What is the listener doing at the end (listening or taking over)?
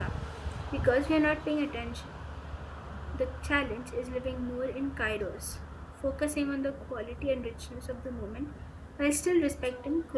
taking over